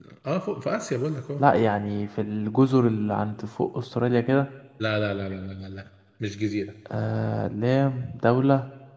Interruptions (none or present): none